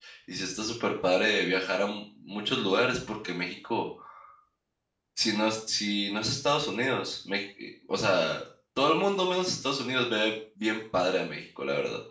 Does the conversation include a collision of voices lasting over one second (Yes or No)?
No